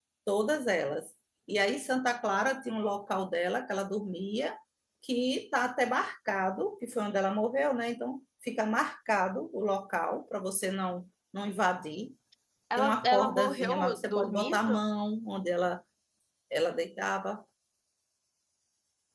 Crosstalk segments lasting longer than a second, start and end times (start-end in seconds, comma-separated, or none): 12.8-14.8